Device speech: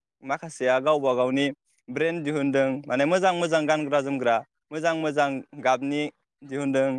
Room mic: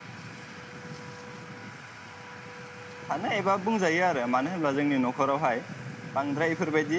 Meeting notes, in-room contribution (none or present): present